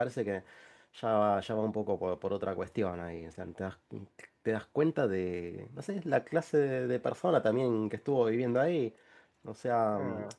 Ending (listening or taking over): listening